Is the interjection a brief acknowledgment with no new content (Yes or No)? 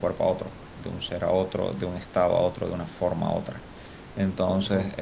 No